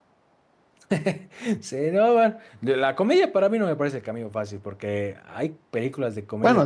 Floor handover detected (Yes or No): No